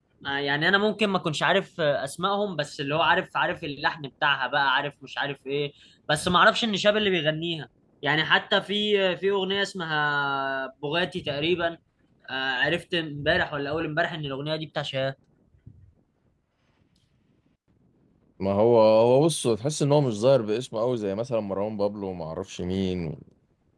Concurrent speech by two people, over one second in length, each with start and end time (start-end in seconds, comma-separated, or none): none